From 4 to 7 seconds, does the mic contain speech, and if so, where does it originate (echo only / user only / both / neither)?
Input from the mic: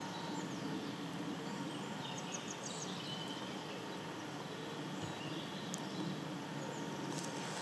neither